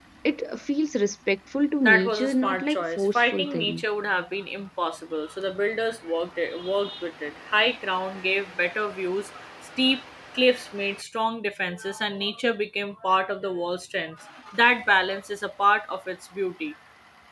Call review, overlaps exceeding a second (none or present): present